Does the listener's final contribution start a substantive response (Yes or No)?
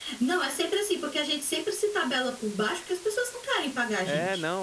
Yes